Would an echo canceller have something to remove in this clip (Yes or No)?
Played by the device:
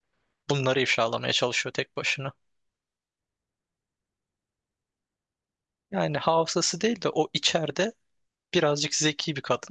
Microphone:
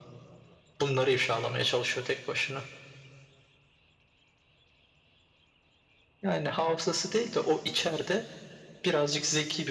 Yes